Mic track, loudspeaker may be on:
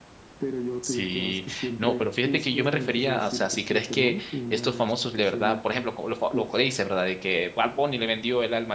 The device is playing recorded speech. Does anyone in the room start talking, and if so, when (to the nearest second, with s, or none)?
1 s